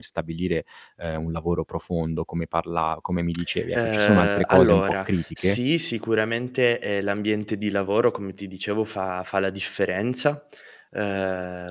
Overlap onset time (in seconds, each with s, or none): 3.7 s